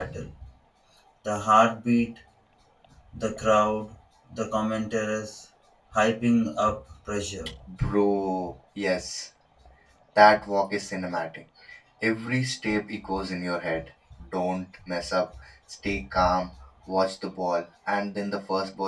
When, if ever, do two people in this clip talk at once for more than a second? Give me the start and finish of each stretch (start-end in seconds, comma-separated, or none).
none